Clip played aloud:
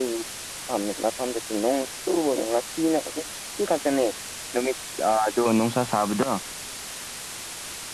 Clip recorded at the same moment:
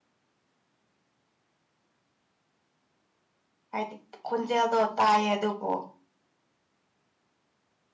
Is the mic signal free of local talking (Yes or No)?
No